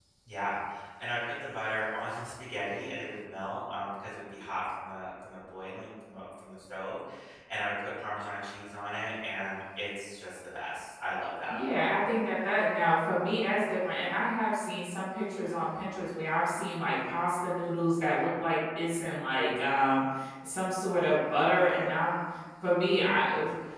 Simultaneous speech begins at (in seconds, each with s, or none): none